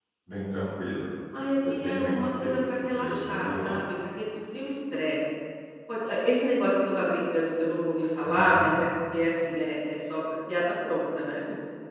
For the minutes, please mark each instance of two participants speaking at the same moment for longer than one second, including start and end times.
1.7-3.8

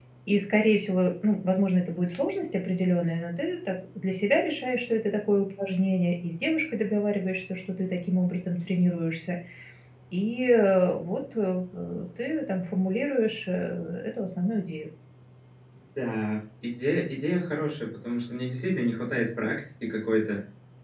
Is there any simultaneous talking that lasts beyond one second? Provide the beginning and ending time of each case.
none

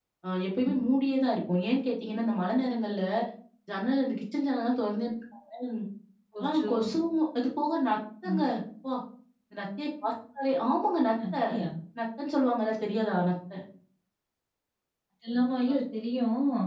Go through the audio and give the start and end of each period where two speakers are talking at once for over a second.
none

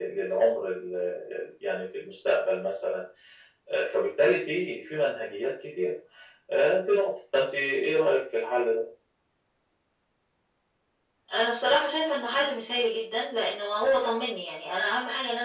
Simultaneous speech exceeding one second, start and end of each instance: none

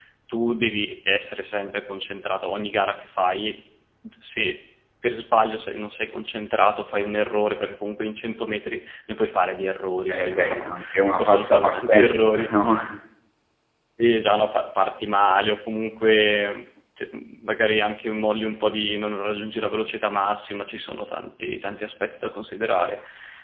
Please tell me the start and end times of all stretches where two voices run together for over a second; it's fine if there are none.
10.1-12.5

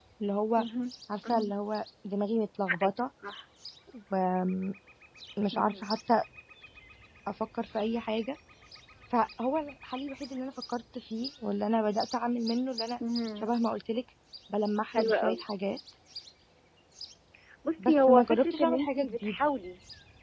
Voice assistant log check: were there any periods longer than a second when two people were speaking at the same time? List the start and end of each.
17.8-19.4

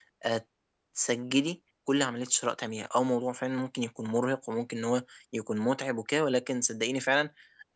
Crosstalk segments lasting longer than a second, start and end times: none

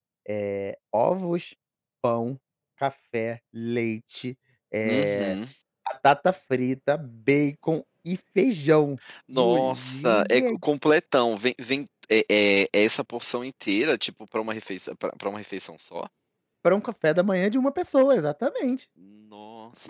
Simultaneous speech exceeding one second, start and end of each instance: 9.3-10.6

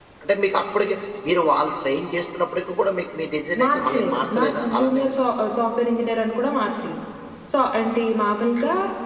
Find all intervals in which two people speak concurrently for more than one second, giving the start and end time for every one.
3.6-5.2

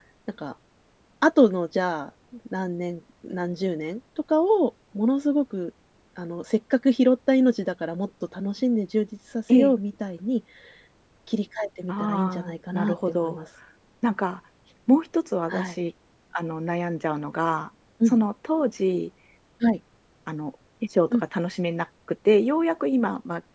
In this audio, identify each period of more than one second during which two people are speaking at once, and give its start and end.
11.9-13.4

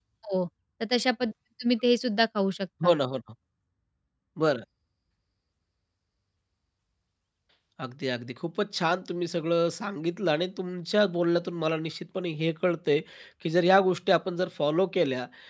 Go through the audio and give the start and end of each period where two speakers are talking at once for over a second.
none

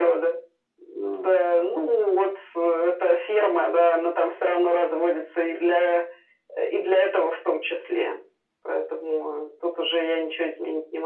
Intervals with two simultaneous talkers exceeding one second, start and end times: none

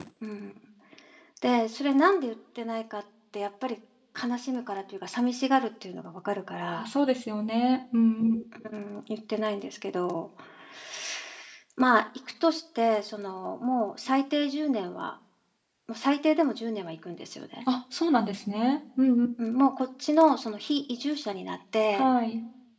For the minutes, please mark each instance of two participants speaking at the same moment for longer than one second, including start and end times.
none

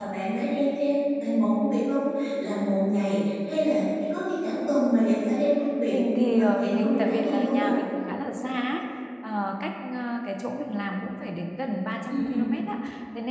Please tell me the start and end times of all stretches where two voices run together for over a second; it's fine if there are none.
5.9-7.6

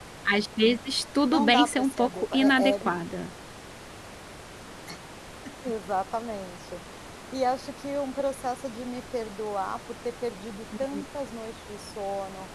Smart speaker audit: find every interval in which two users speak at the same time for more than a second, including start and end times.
1.3-2.9

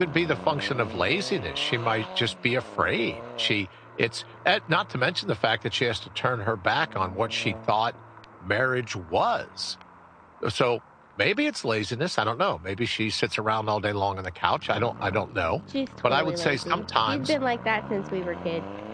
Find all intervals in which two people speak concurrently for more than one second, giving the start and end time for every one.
16.1-17.4

